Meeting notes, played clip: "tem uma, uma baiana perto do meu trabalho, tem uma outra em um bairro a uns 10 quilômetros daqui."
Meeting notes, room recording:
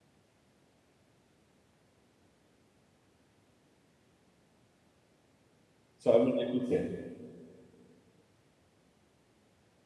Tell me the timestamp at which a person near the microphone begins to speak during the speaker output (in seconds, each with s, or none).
6.0 s